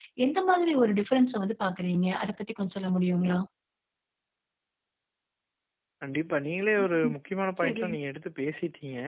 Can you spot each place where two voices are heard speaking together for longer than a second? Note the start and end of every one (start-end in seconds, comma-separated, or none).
none